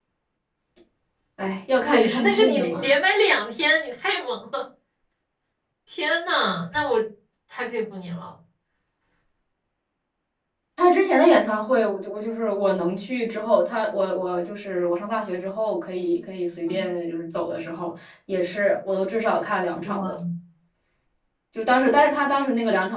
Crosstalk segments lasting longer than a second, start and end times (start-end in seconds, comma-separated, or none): 1.7-2.9